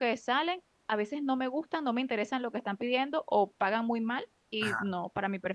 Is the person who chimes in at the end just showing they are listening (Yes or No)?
Yes